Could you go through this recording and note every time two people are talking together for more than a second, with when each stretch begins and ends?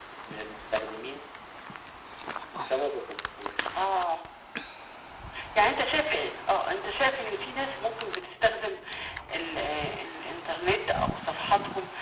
none

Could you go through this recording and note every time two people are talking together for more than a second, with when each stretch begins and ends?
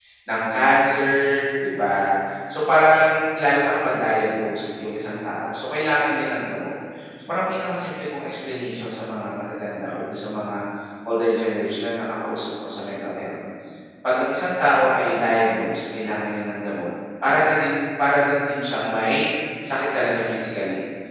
none

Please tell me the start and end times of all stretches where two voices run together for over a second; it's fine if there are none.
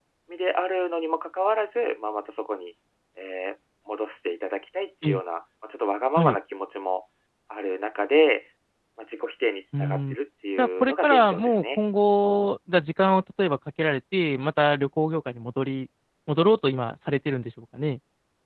10.6-11.8

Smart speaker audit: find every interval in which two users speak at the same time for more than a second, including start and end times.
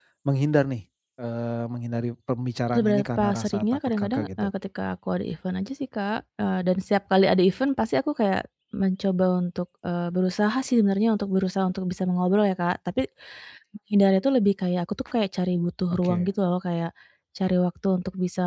2.7-4.5

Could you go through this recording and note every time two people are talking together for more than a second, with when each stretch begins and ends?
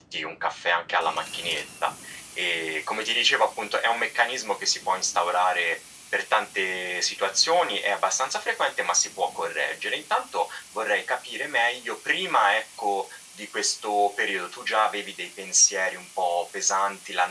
none

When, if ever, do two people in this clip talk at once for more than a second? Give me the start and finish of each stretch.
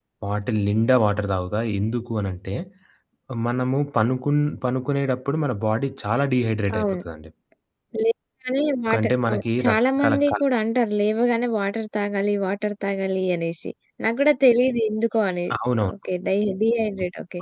8.9-10.4

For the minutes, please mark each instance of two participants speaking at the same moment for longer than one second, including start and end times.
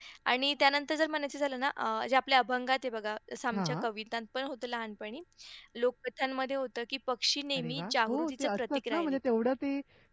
7.6-9.2

